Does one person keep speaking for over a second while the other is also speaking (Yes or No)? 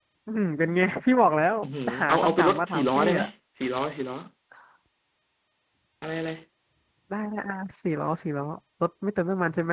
Yes